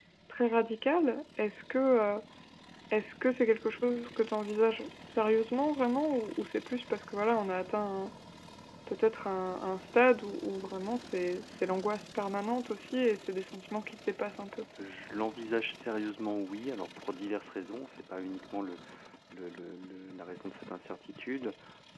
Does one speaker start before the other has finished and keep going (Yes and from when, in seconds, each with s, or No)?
No